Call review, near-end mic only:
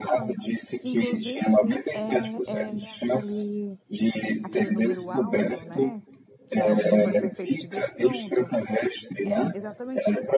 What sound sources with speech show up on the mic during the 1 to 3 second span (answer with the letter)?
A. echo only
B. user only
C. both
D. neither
C